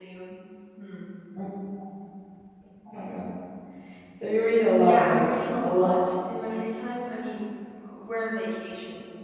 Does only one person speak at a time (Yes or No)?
No